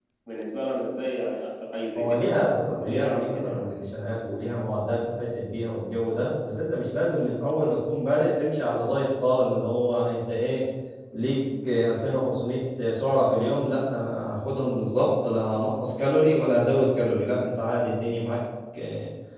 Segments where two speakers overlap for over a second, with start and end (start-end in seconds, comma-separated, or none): 2.0-3.6